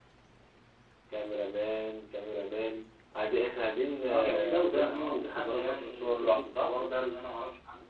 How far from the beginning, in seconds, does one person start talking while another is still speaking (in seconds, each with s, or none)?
4.1 s